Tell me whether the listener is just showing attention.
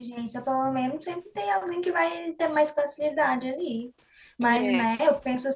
Yes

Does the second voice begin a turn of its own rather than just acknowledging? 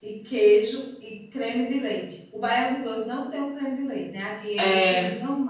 No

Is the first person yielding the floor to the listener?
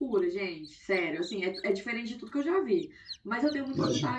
No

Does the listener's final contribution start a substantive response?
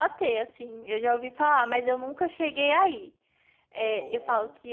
No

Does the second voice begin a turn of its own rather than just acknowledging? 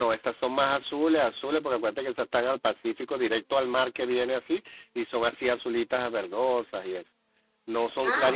No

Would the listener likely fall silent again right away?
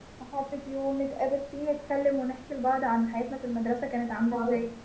No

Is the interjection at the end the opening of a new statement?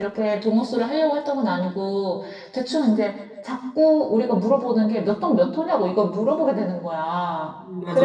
No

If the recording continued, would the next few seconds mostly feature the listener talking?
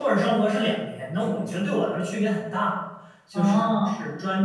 No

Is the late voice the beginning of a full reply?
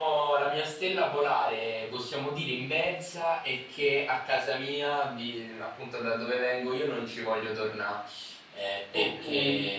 No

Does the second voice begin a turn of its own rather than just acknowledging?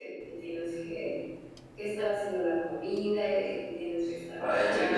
Yes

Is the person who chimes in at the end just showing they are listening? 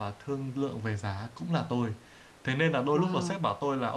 Yes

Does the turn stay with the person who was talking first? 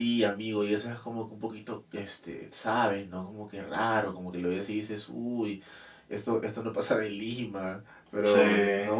Yes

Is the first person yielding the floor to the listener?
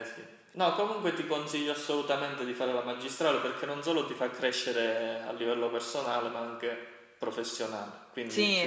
Yes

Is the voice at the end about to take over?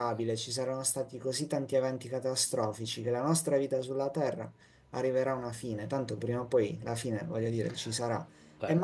No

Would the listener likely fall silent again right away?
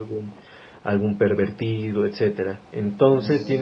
Yes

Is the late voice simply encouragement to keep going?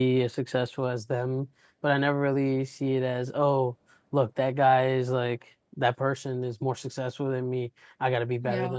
Yes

